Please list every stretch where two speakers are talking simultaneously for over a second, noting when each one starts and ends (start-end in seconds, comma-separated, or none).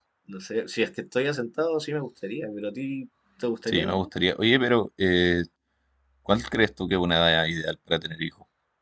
none